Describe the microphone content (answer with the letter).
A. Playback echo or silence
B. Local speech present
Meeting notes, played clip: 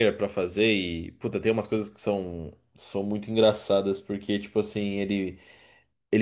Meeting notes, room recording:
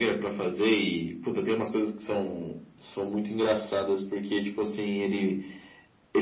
A